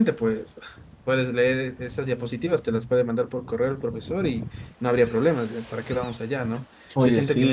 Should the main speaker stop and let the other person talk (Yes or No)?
No